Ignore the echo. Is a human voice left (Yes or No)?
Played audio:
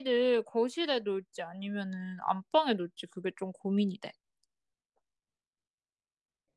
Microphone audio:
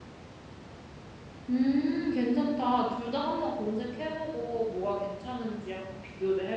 Yes